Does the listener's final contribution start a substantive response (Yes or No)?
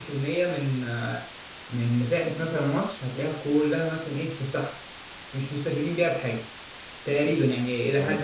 Yes